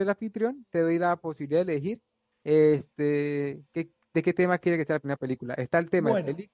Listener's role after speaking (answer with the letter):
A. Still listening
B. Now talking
A